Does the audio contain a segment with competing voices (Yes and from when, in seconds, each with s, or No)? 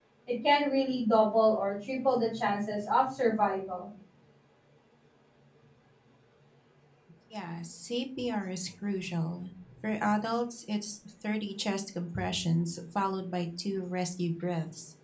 No